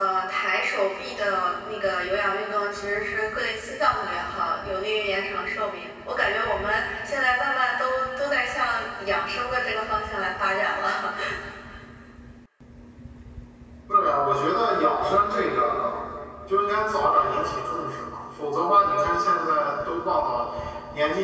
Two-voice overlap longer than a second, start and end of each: none

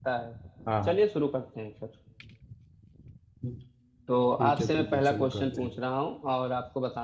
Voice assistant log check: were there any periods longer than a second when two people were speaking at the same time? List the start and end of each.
4.4-5.8

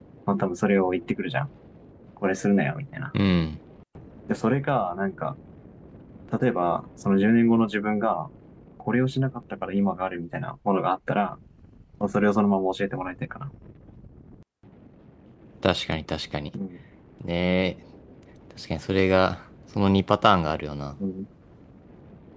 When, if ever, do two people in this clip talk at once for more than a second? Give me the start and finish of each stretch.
none

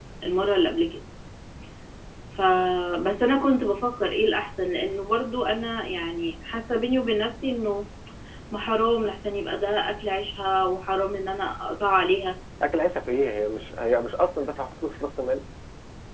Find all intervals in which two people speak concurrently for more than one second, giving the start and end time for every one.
none

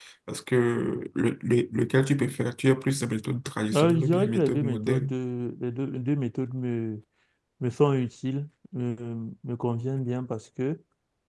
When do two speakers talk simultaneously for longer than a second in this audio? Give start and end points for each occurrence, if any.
3.8-5.1

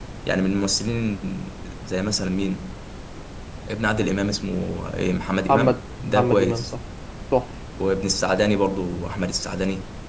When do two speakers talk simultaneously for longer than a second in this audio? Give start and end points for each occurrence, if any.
5.5-6.7

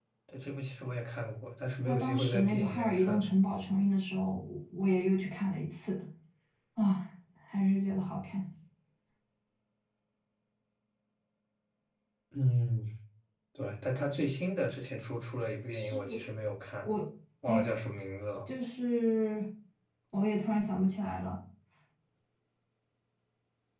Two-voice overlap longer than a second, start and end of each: 1.9-3.3

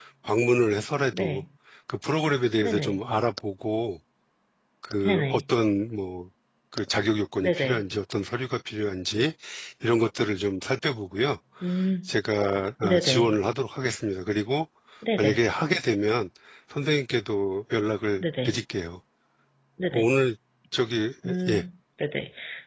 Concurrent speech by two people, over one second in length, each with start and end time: none

